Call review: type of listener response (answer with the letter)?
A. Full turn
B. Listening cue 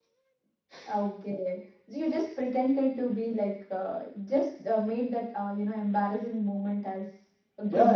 A